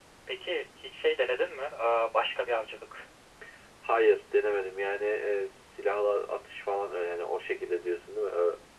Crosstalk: none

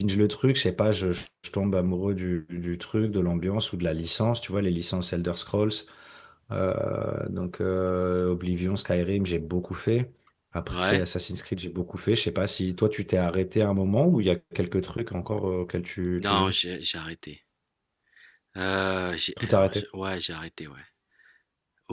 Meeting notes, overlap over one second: none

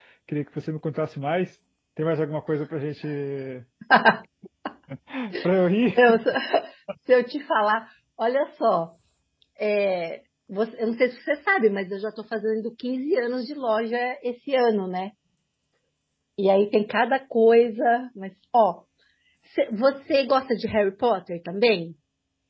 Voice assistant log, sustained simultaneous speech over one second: none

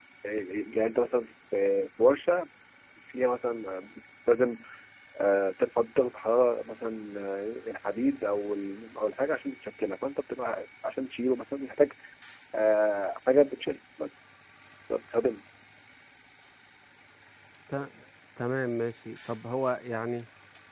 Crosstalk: none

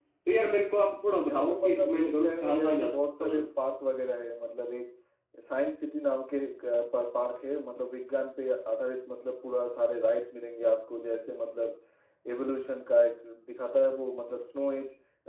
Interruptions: present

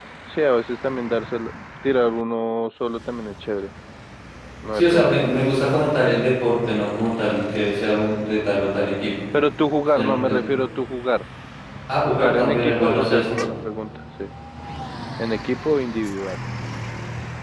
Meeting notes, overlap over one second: present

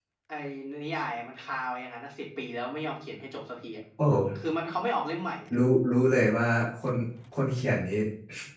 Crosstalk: none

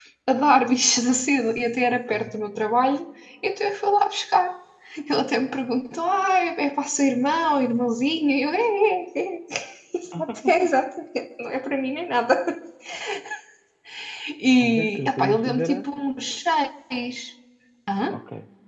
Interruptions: present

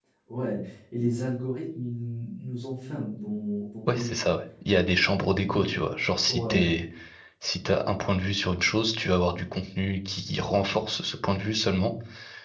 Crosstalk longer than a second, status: none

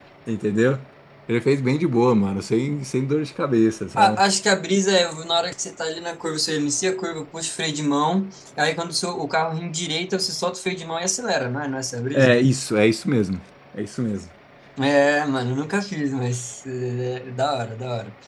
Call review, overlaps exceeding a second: none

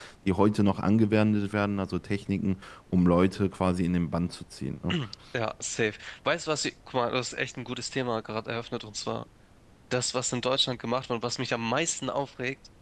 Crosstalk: none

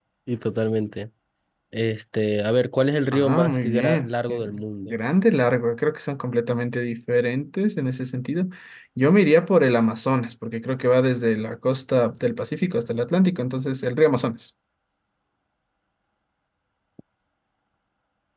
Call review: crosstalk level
present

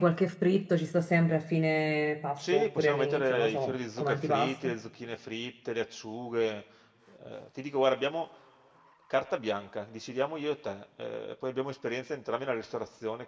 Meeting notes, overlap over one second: present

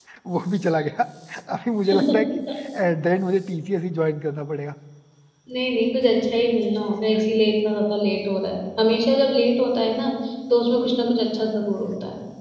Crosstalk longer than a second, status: none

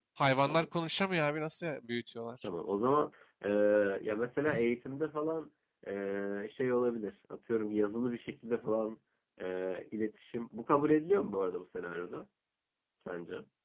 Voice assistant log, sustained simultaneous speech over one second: none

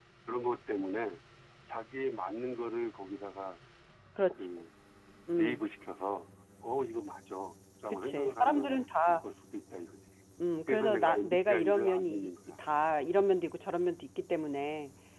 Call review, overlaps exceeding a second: present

